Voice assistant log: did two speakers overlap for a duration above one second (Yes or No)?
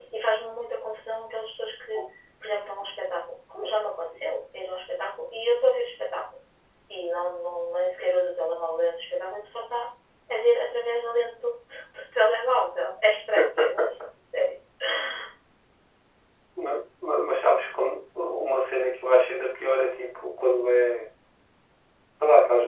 No